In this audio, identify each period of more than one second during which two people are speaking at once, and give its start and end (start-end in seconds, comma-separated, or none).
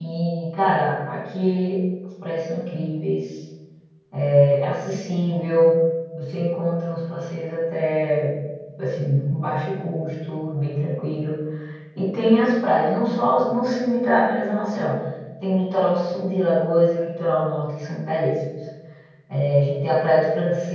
none